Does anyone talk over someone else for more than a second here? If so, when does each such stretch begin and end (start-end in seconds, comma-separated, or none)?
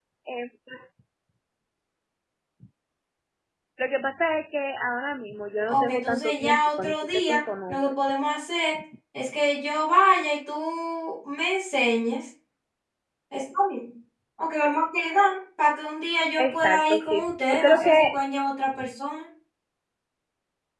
5.7-7.9, 16.4-18.2